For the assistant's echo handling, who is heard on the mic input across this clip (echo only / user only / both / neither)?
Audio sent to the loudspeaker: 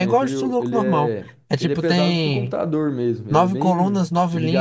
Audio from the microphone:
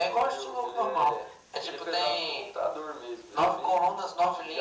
echo only